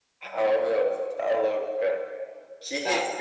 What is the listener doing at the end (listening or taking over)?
listening